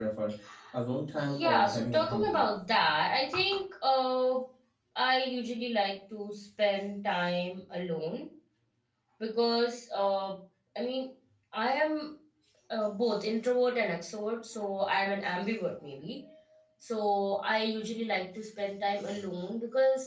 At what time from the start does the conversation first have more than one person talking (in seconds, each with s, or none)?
1.2 s